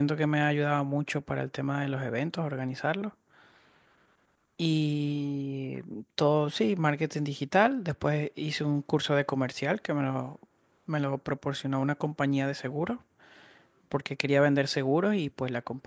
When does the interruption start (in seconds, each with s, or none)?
none